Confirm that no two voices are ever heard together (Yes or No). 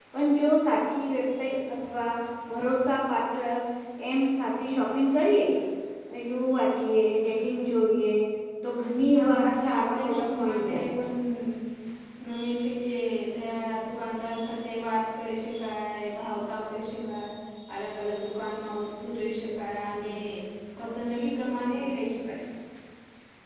No